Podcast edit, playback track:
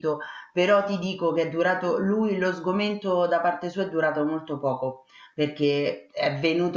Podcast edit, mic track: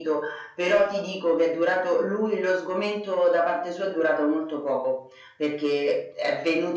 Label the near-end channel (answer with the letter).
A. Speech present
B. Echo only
B